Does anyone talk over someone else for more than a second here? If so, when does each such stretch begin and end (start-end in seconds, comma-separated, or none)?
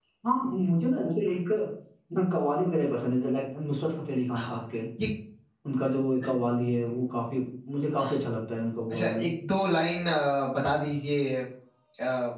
none